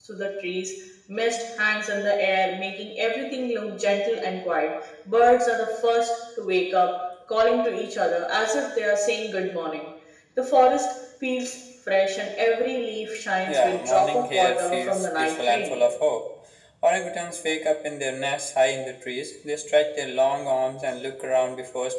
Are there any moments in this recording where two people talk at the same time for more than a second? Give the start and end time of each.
13.4-15.8

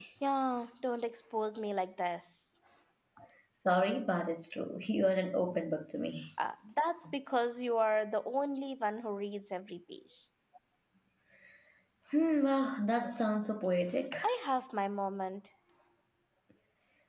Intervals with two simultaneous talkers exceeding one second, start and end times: none

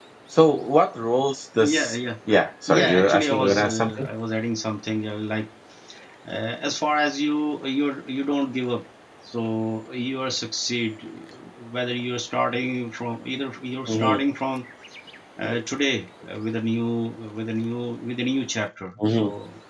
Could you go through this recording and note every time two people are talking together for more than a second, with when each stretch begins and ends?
2.7-4.1

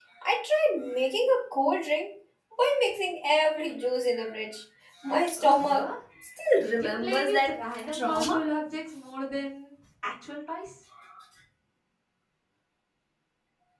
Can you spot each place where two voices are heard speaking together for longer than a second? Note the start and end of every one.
6.6-8.4

